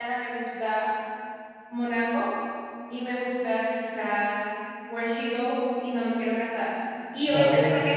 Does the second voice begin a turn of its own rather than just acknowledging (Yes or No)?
No